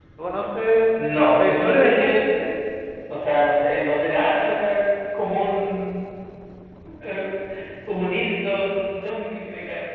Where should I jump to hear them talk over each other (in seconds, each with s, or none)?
1.0 s